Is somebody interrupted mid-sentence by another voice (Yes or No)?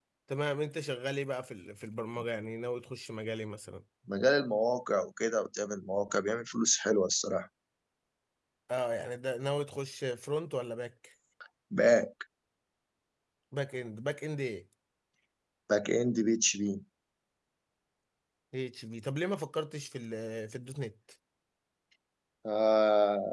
No